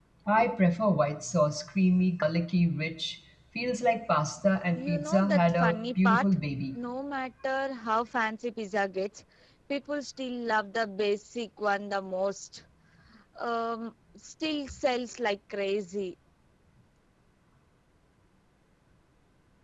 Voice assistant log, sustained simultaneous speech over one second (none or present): present